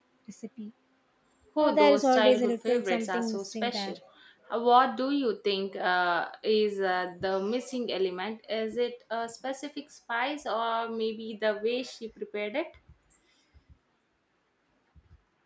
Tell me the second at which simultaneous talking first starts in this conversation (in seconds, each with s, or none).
1.6 s